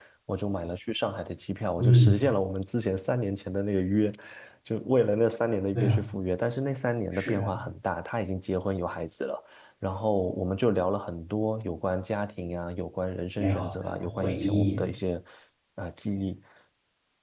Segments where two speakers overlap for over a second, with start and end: 13.4-14.8

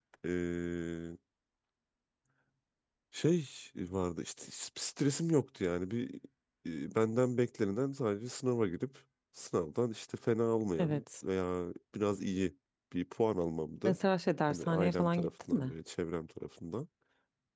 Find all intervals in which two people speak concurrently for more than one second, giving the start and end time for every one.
14.5-15.7

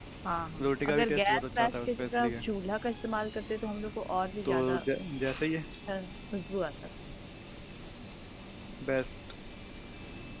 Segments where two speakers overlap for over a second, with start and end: 0.6-2.3

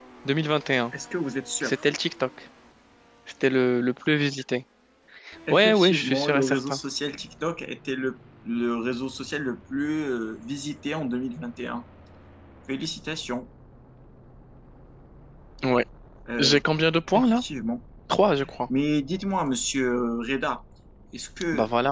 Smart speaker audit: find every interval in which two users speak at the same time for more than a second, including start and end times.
5.5-6.8

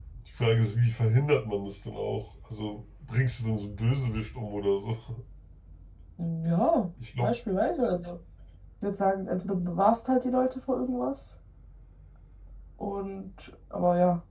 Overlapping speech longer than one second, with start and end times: none

